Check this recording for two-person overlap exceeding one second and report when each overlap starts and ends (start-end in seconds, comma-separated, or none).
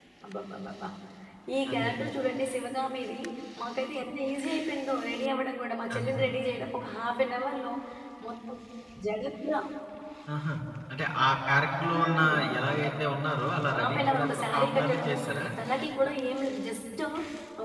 13.7-15.1